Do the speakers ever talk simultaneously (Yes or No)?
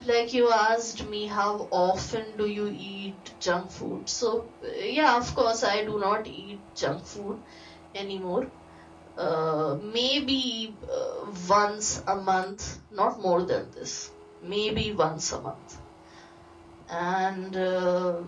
No